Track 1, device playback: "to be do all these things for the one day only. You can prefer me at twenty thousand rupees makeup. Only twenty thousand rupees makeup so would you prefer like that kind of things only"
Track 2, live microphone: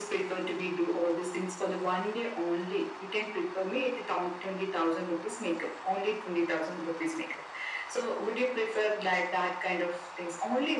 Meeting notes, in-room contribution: none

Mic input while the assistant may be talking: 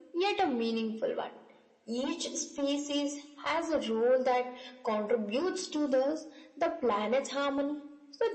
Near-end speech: none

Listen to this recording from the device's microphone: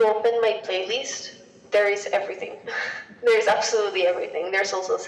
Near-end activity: none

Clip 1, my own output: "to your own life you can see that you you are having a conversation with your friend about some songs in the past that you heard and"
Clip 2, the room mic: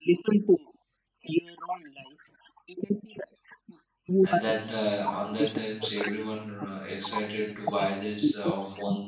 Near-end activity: present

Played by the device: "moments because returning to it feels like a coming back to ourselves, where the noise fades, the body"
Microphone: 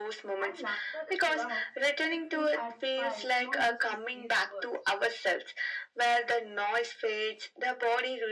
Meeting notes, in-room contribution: present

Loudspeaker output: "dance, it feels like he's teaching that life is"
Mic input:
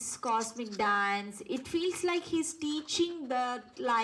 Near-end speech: none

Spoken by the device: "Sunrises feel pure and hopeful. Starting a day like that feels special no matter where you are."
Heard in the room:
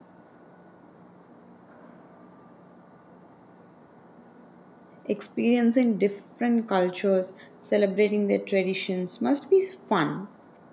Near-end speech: present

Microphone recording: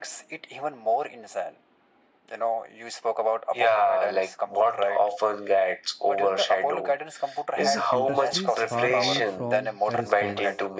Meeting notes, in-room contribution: present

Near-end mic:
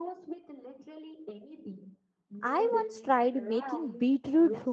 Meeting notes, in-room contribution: present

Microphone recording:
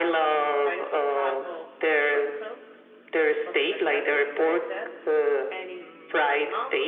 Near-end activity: present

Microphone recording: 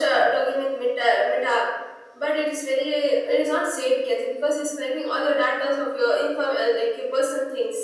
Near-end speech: none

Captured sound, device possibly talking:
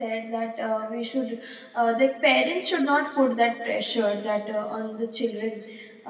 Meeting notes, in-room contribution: present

